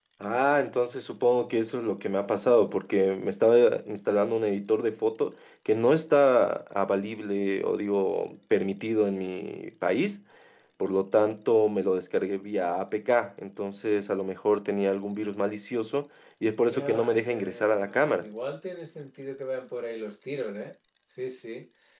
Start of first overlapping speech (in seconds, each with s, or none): 16.6 s